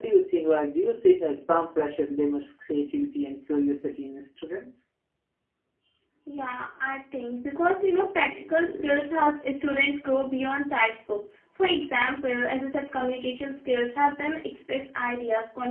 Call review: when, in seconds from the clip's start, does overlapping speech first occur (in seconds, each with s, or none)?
none